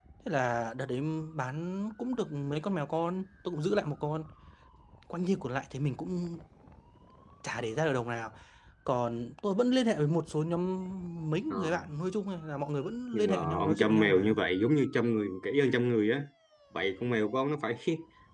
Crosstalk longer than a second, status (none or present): present